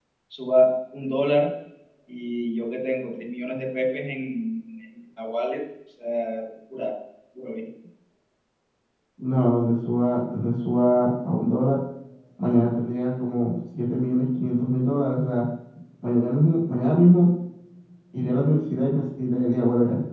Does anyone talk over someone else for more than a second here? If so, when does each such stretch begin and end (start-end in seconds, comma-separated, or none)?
none